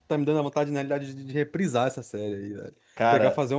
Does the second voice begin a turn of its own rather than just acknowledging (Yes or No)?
No